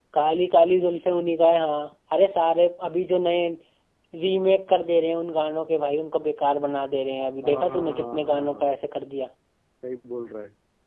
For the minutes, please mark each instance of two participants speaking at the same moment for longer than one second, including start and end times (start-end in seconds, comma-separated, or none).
7.4-8.8